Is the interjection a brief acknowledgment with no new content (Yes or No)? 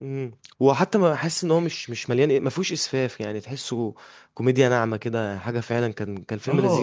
No